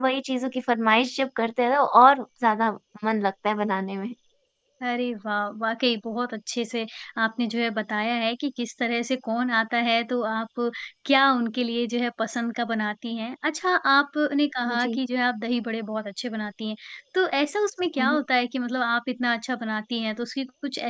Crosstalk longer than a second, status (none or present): none